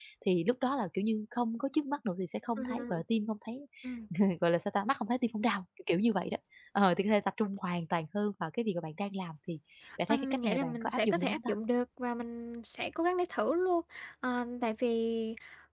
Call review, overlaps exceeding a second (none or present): present